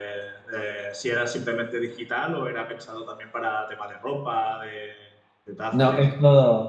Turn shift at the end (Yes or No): Yes